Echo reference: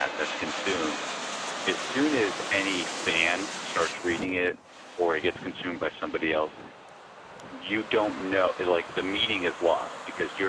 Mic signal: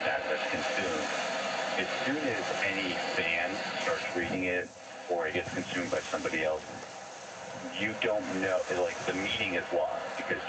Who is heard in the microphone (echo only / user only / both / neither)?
echo only